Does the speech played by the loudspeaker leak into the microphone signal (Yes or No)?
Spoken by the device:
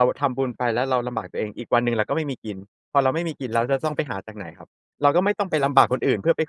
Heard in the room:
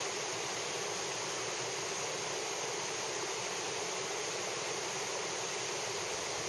No